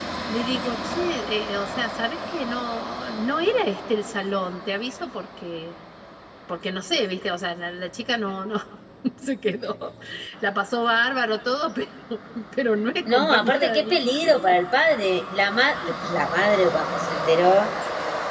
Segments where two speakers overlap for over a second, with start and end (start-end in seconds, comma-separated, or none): 13.1-14.5